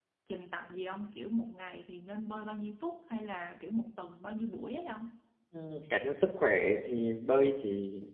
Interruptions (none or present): none